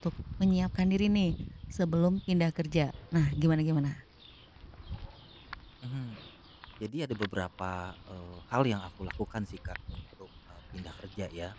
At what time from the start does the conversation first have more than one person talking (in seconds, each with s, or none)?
none